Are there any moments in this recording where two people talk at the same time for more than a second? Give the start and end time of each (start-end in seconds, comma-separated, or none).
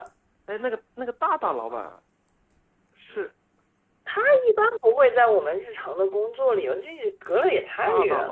none